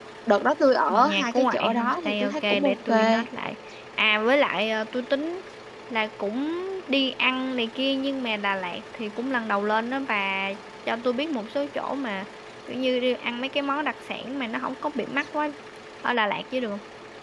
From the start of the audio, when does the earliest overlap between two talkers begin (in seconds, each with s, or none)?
0.9 s